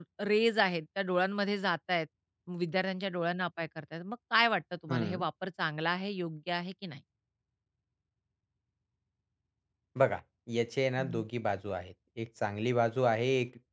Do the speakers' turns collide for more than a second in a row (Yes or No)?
No